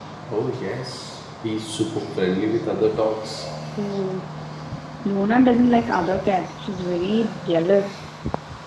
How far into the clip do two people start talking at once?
none

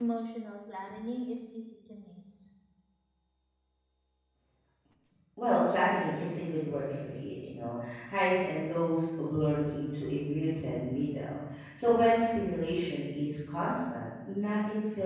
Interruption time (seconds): none

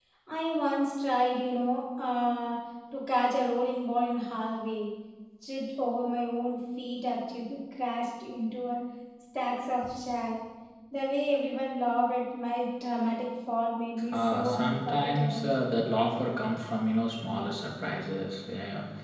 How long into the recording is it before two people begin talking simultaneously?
14.1 s

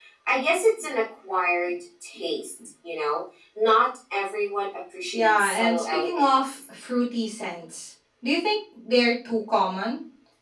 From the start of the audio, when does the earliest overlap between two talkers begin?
5.1 s

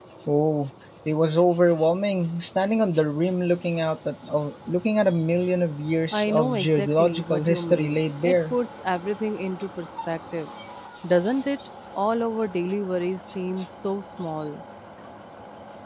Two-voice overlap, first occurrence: 6.1 s

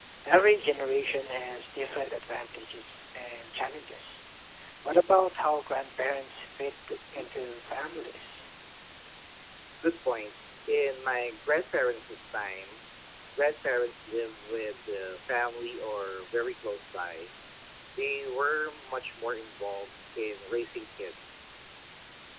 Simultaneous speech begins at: none

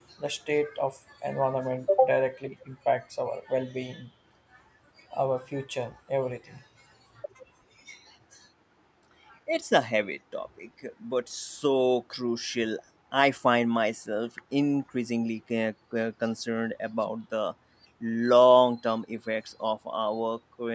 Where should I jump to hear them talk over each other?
none

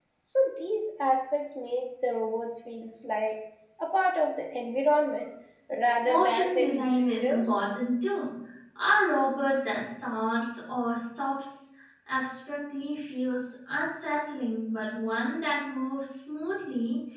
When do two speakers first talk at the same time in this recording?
6.0 s

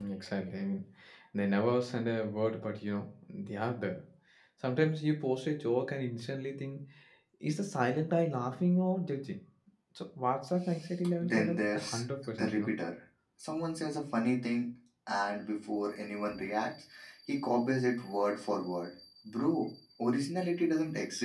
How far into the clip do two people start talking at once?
11.2 s

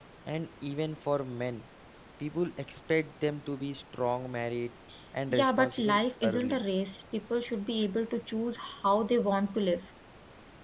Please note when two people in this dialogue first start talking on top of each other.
5.3 s

